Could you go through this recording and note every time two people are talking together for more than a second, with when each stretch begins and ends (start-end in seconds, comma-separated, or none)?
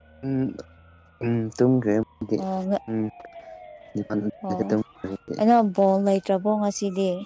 none